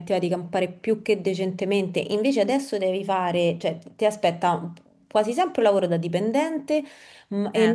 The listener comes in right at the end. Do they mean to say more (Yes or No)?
No